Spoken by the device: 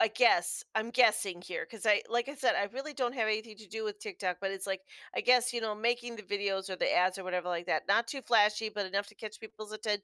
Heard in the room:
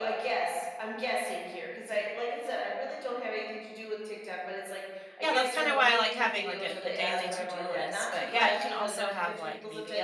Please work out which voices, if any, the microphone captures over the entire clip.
both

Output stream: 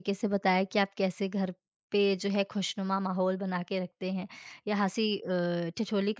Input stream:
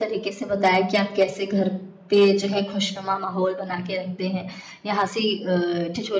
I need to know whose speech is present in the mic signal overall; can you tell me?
echo only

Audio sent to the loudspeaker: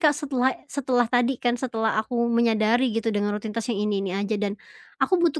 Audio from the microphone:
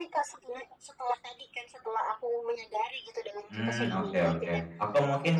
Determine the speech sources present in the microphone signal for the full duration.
both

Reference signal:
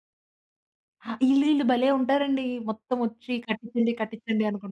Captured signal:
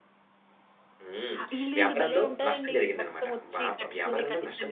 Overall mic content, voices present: both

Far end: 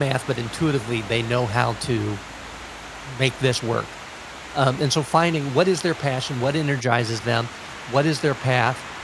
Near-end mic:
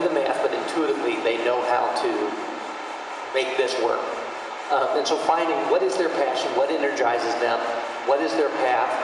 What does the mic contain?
echo only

